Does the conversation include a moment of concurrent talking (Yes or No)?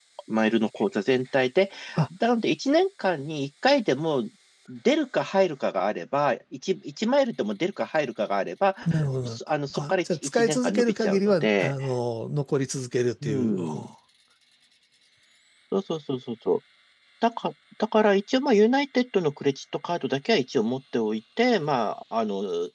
Yes